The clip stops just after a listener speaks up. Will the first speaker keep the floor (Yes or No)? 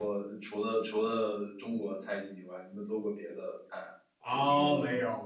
No